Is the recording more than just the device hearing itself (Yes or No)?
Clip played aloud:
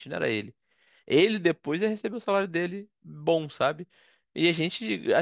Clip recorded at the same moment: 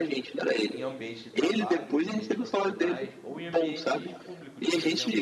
Yes